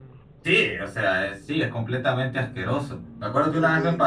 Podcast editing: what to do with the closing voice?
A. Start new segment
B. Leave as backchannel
B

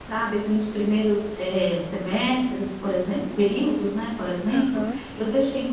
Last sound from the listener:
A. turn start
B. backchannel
B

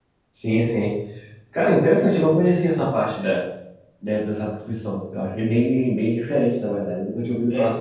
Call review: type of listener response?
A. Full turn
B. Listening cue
A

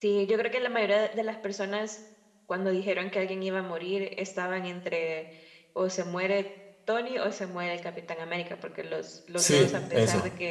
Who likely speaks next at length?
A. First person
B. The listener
A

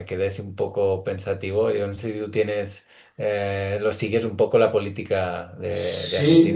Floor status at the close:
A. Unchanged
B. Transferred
B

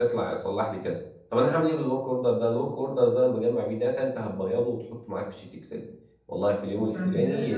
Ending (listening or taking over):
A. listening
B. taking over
B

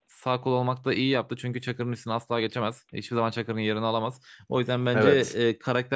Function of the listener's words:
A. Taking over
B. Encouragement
B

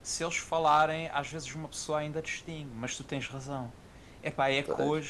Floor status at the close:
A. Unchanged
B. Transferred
A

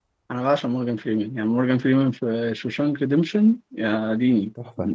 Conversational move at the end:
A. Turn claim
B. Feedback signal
A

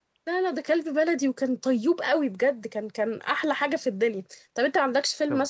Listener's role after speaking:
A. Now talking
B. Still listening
B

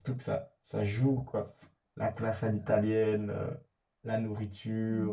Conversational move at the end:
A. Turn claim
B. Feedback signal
A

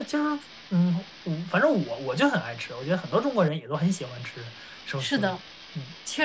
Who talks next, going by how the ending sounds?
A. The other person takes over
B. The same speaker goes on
A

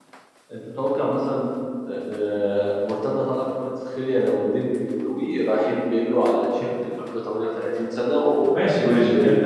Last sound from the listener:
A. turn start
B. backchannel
A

